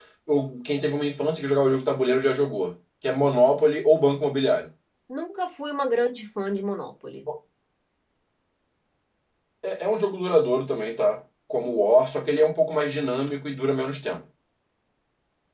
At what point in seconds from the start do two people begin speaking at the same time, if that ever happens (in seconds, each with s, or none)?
none